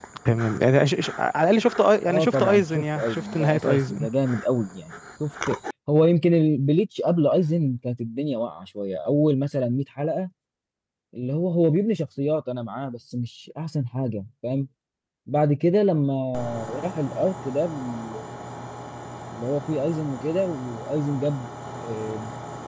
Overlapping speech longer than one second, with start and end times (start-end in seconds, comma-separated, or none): 2.1-4.1